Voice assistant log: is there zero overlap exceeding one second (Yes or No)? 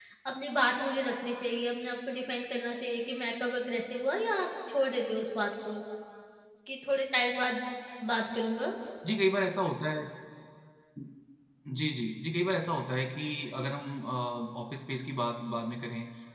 Yes